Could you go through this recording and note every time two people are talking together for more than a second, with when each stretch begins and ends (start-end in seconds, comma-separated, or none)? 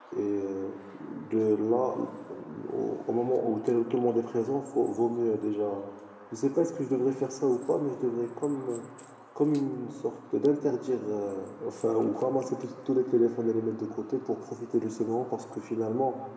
none